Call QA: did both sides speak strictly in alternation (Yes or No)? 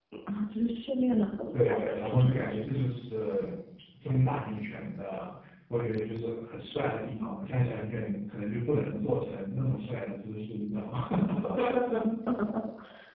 No